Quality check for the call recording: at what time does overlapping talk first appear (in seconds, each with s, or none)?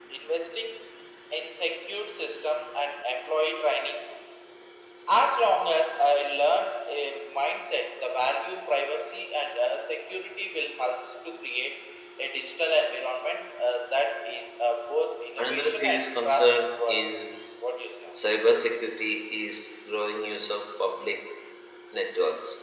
15.4 s